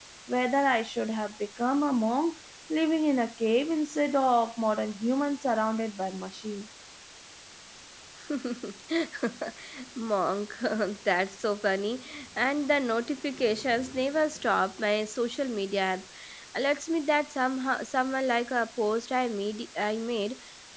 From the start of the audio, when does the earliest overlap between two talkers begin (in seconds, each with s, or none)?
none